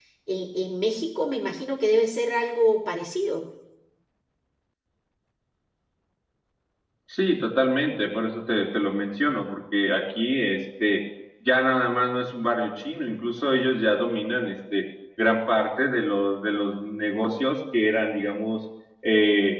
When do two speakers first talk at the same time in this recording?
none

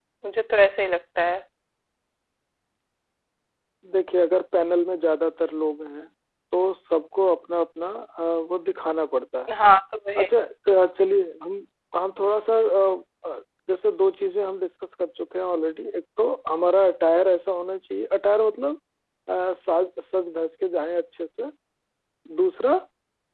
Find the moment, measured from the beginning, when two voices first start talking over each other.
none

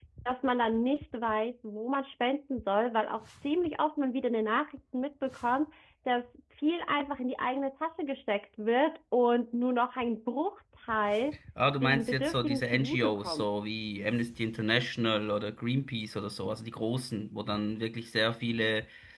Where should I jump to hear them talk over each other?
11.8 s

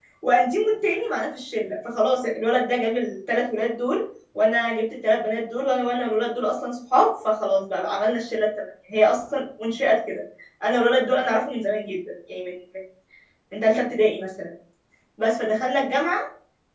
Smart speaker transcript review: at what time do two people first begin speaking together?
none

